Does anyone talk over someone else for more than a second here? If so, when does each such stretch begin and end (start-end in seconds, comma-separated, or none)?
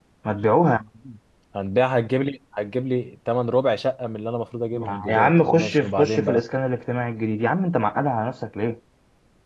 4.7-6.4